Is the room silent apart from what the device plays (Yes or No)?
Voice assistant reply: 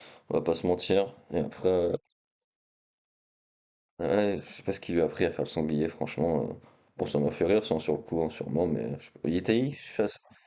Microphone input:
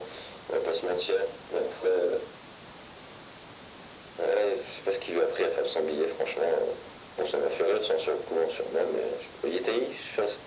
Yes